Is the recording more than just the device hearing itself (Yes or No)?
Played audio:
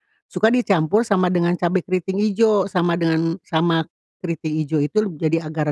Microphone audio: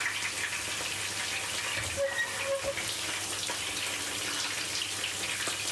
No